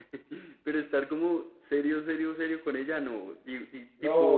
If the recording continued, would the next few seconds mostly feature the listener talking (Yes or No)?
Yes